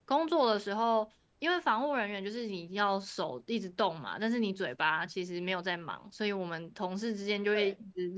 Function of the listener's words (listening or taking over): listening